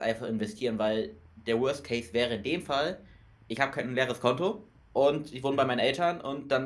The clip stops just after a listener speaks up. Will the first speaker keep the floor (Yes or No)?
Yes